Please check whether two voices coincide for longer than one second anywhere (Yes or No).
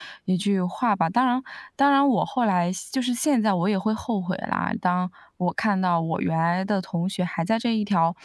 No